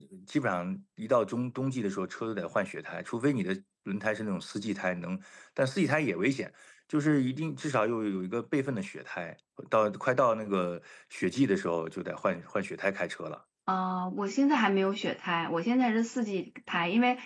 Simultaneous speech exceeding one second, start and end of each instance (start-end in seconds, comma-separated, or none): none